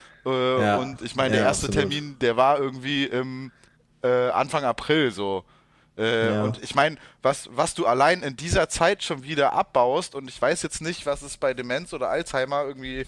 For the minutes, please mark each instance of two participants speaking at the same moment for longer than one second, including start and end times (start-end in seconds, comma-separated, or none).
0.6-2.0